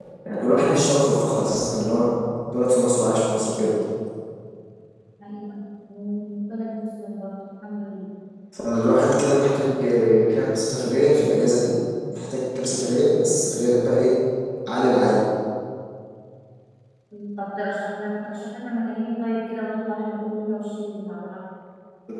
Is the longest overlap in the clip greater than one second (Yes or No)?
No